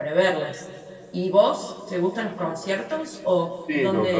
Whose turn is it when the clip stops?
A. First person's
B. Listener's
B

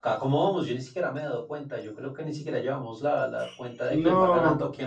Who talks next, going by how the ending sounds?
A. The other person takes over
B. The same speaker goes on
B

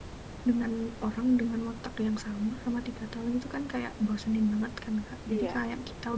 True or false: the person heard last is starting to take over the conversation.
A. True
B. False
B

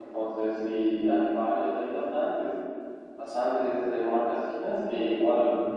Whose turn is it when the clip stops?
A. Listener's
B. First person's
B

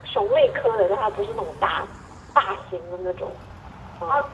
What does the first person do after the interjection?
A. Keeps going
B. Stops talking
B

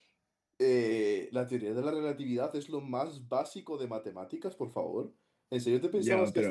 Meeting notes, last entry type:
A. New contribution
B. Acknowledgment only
A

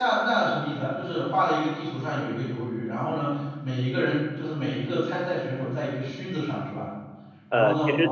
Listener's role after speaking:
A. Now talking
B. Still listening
A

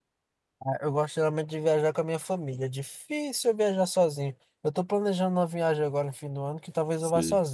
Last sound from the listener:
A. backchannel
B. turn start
A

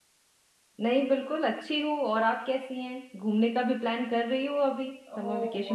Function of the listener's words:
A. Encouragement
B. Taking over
B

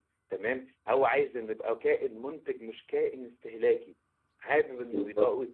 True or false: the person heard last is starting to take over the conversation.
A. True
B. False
B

